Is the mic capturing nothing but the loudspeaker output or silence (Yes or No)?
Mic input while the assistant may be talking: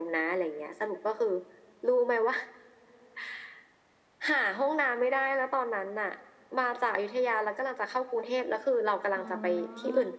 No